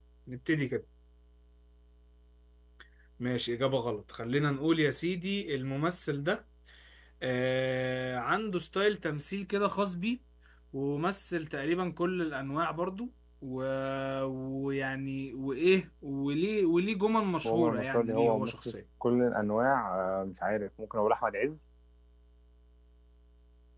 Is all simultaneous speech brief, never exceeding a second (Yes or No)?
No